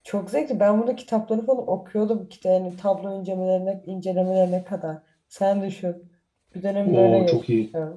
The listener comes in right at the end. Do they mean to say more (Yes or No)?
Yes